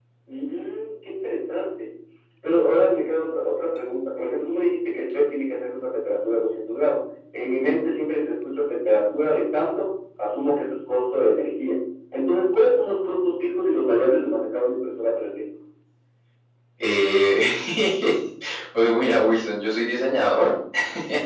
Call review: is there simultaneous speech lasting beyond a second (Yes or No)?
No